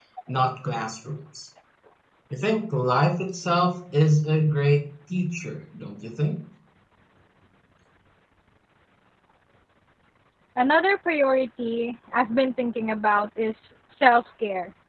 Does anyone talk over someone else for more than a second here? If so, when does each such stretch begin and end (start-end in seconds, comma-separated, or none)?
none